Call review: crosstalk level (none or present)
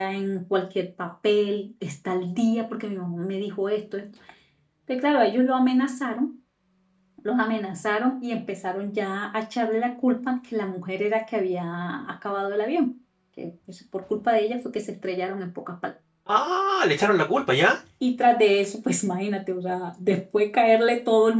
none